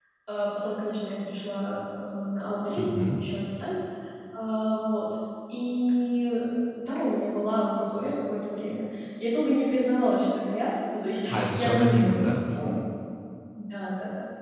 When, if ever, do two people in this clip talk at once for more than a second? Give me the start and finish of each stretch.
11.3-12.7

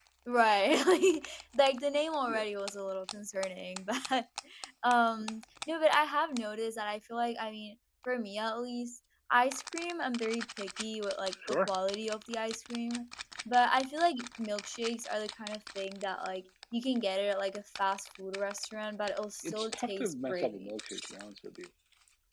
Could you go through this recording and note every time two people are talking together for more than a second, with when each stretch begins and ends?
19.4-20.7

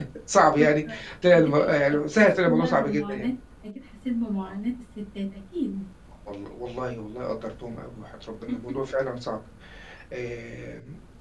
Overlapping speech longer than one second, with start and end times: 1.3-3.3

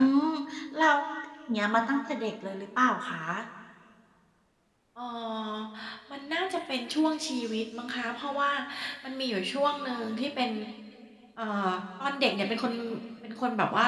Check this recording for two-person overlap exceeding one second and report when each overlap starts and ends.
none

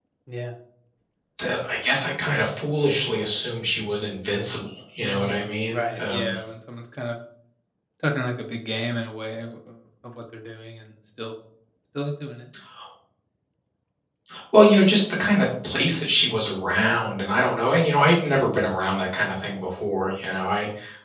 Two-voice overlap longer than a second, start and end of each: 5.0-6.3

